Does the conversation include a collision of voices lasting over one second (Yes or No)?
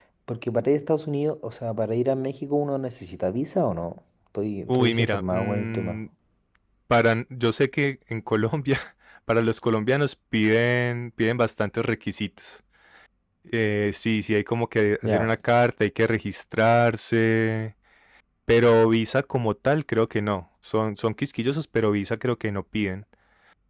Yes